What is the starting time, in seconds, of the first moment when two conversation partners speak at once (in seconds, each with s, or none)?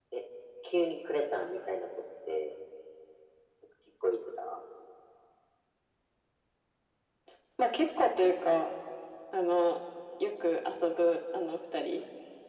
none